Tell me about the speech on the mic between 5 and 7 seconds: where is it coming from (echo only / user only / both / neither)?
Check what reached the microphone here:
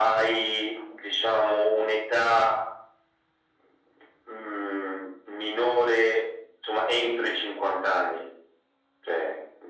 echo only